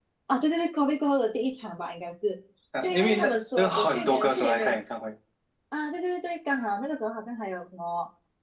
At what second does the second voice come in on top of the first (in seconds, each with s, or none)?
2.8 s